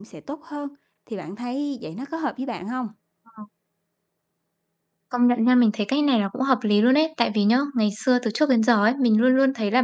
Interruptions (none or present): none